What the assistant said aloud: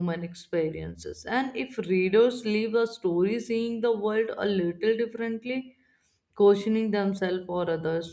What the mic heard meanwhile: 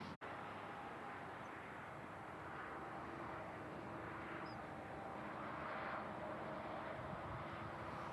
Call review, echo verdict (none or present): none